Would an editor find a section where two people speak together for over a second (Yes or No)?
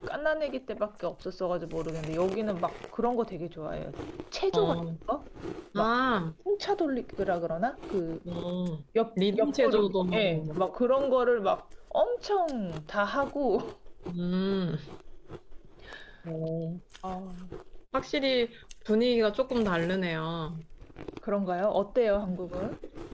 Yes